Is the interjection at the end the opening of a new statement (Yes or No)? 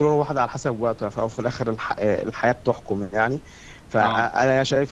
No